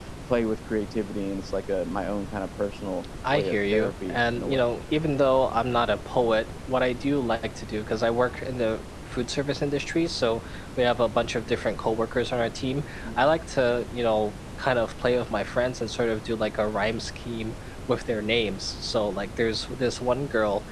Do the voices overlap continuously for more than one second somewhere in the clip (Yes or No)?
Yes